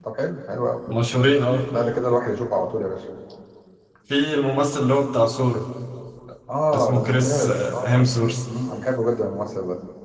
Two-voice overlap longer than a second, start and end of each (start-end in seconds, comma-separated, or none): 6.7-8.1